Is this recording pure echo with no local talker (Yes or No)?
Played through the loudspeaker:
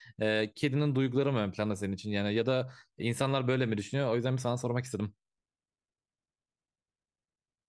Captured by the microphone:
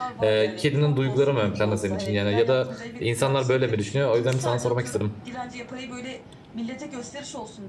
No